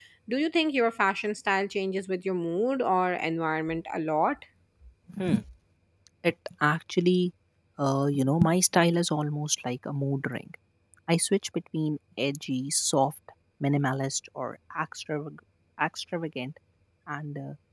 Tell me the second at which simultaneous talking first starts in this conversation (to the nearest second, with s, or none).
none